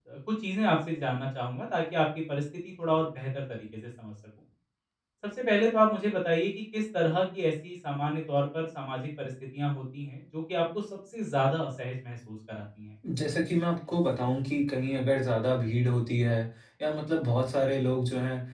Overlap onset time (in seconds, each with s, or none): none